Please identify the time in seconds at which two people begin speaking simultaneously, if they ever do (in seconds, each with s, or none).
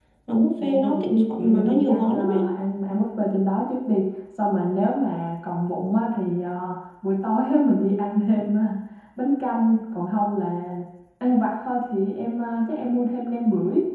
0.6 s